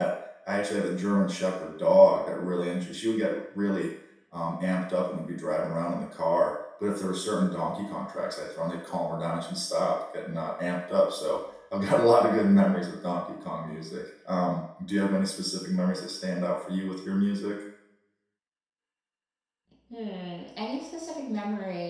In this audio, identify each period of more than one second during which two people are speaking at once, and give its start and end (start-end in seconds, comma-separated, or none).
none